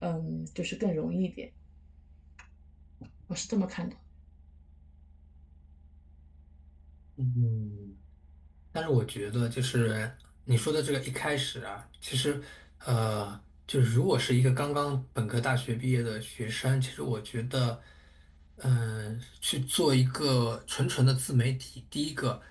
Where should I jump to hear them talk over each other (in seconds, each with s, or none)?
none